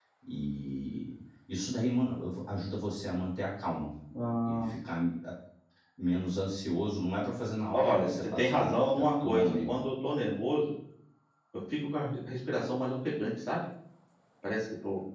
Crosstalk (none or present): present